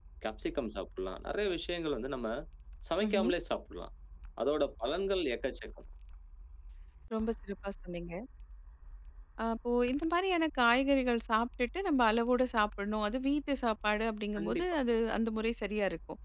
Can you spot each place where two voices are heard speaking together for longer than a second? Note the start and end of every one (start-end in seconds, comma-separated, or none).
none